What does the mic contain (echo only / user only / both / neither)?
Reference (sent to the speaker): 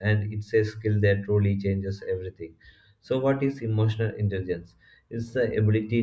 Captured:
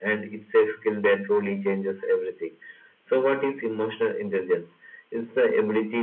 echo only